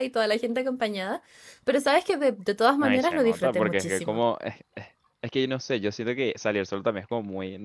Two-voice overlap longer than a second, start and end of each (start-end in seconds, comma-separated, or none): 2.8-4.2